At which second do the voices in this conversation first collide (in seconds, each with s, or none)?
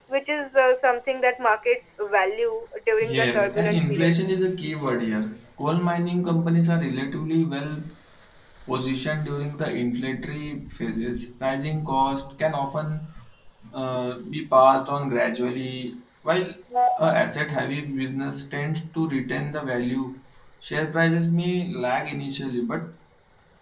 3.0 s